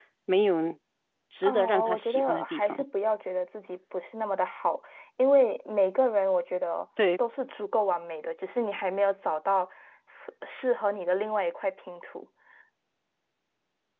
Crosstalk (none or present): present